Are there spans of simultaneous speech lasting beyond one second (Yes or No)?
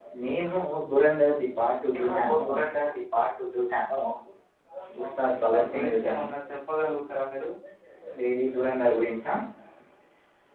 Yes